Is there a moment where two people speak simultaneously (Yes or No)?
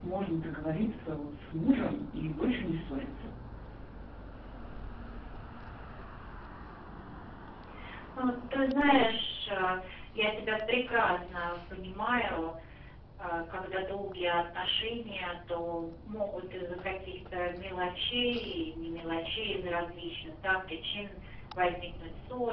No